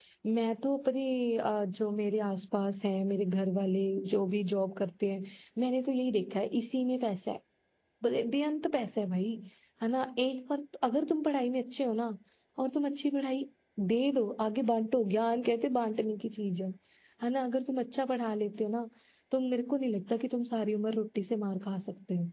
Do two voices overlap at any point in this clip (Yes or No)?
No